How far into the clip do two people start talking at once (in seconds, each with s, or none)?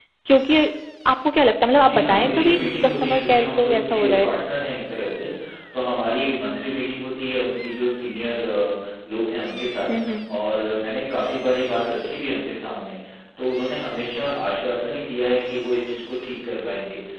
1.9 s